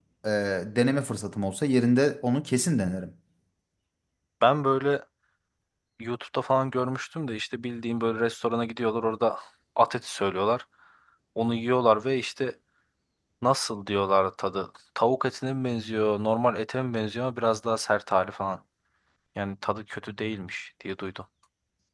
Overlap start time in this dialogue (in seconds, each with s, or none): none